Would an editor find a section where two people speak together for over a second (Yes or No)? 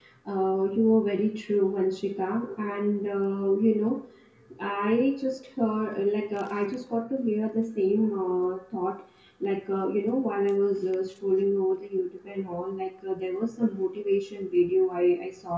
No